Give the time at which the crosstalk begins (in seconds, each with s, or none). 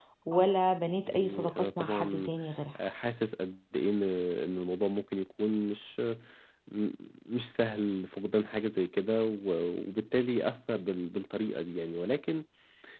1.1 s